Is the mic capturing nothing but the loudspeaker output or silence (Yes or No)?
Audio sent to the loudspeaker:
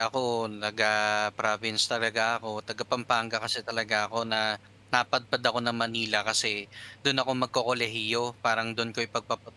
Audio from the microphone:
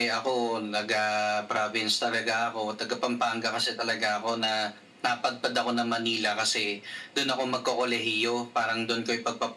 Yes